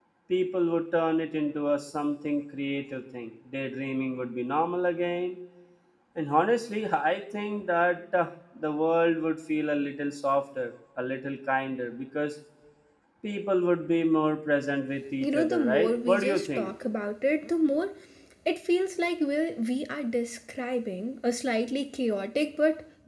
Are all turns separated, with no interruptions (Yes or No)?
No